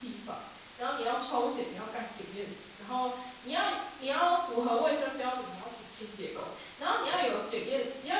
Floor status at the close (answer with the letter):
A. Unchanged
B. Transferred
A